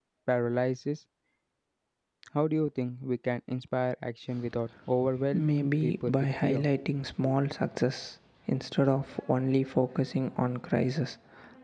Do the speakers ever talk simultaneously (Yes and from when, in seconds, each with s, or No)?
Yes, from 5.3 s